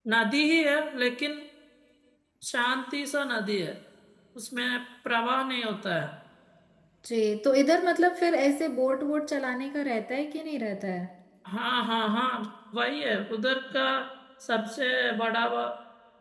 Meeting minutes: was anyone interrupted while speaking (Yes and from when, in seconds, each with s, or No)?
No